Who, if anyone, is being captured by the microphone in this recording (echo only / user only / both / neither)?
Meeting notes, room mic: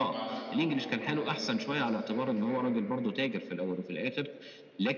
both